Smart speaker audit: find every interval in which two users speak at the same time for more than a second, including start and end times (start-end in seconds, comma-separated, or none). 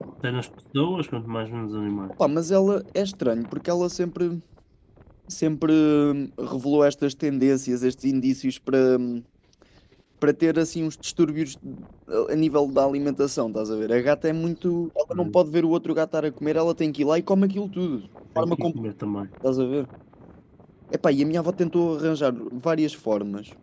none